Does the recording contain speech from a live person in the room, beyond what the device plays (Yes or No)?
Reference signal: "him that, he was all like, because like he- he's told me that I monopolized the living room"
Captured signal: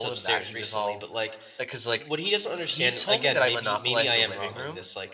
Yes